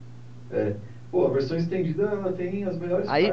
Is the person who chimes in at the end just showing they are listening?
No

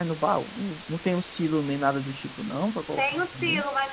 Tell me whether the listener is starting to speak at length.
Yes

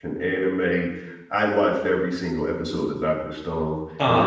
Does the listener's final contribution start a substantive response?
No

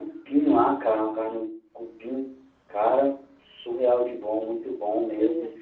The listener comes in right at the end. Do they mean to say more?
Yes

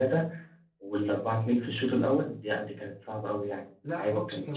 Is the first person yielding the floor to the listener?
Yes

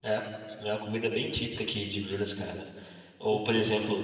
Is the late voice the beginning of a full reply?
No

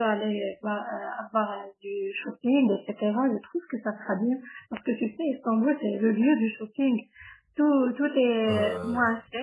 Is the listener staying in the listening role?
Yes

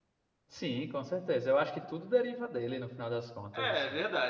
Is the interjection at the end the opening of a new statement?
Yes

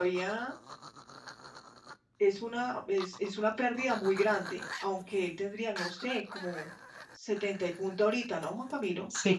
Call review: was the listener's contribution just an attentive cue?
No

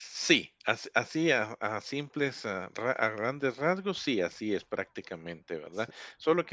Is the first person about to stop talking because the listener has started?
No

